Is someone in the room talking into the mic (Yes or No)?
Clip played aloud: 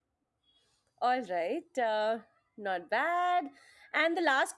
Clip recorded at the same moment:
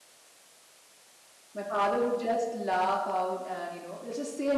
Yes